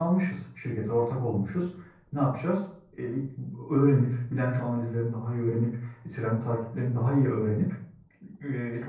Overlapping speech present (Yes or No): No